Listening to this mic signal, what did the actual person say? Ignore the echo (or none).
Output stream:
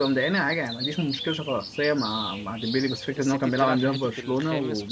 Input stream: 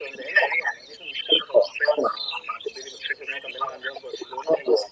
none